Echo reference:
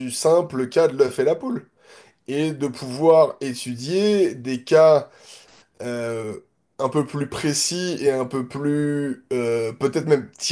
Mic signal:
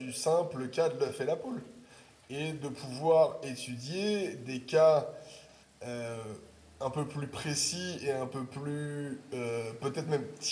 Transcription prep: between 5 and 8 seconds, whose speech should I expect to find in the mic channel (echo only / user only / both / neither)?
echo only